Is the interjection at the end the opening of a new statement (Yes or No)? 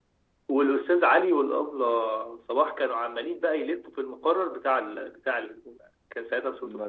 No